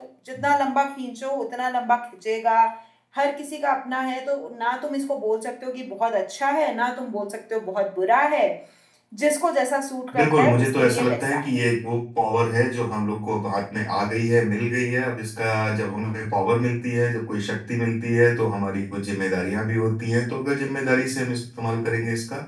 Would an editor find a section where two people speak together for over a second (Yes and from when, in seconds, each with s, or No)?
Yes, from 10.1 s